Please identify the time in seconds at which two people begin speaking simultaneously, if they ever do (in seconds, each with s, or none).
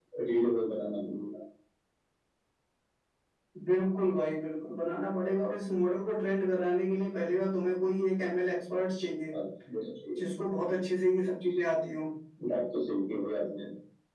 none